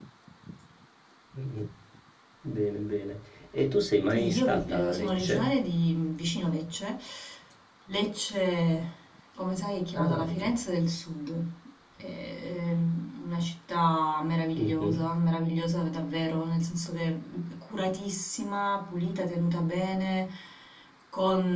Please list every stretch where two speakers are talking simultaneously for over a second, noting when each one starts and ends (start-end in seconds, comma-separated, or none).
4.1-5.4